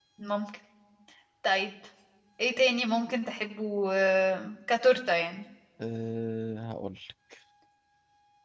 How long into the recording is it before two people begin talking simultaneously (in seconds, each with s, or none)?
none